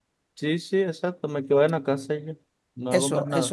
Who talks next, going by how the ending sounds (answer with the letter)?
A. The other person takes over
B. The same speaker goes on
A